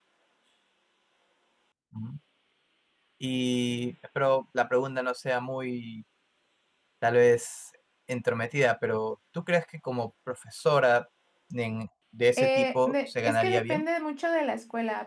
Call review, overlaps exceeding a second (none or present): present